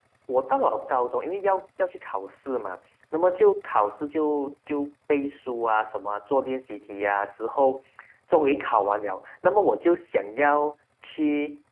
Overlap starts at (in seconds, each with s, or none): none